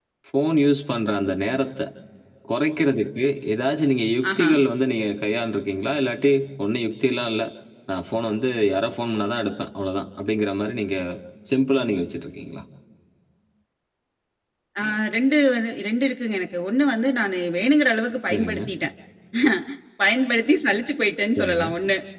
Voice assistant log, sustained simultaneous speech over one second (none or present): none